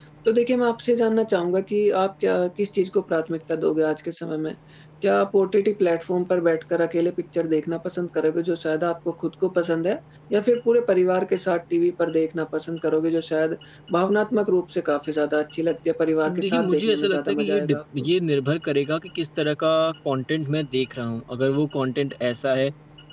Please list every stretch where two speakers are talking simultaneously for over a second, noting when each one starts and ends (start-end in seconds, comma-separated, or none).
16.3-18.1